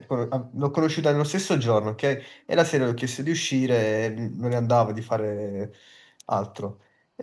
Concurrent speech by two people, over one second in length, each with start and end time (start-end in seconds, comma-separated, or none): none